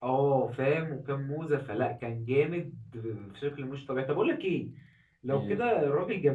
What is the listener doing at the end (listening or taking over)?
listening